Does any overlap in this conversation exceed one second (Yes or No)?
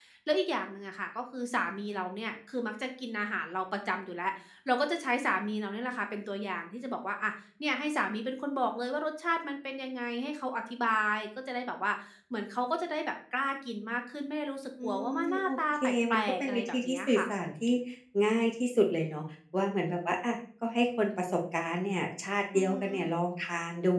Yes